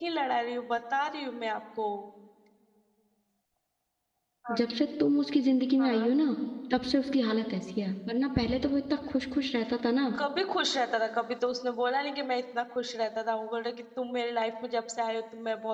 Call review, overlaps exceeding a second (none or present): none